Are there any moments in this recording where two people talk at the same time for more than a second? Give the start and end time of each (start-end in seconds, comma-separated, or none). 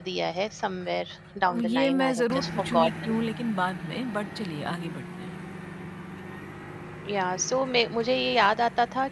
1.5-3.1